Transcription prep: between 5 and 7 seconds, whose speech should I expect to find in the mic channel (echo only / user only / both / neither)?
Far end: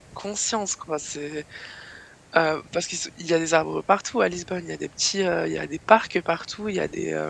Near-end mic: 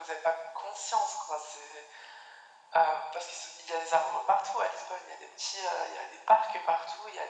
echo only